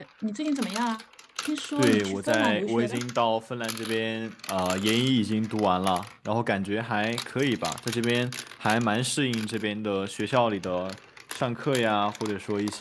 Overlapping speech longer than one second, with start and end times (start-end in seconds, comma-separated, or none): 1.8-3.0